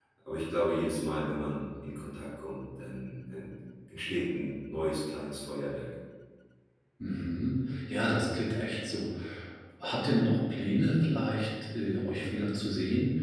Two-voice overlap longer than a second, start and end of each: none

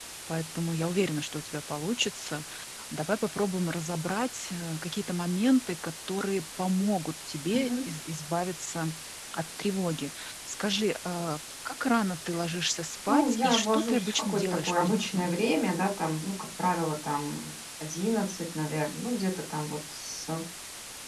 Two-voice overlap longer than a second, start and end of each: 13.1-15.3

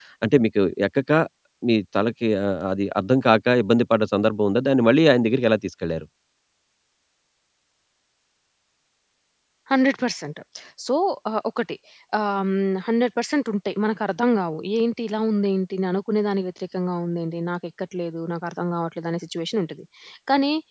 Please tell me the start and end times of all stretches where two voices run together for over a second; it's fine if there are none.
none

